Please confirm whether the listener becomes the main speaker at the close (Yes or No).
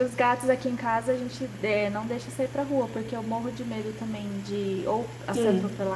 No